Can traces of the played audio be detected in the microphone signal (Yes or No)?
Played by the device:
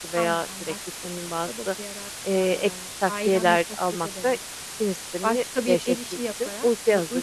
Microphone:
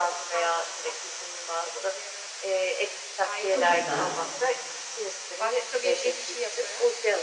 Yes